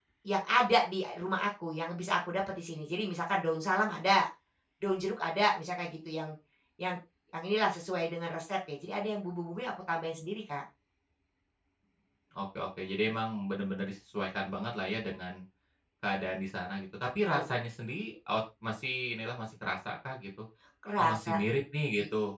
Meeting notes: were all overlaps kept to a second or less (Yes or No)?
Yes